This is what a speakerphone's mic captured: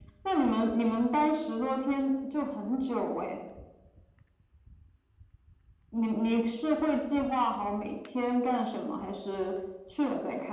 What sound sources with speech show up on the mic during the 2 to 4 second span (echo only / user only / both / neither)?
echo only